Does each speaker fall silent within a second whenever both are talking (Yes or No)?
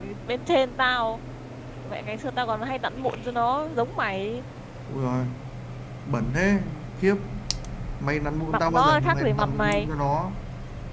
No